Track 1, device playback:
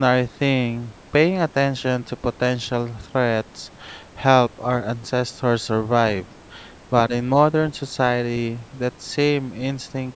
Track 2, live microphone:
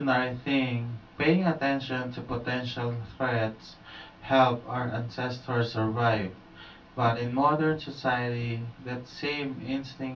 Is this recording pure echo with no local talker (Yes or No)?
Yes